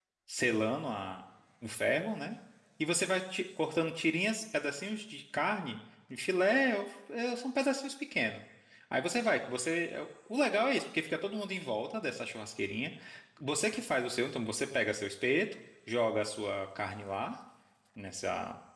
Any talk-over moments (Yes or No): No